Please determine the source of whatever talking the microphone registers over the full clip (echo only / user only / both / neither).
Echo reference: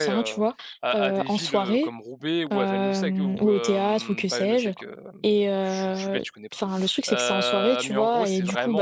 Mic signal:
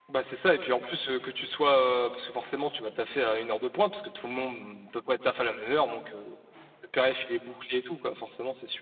user only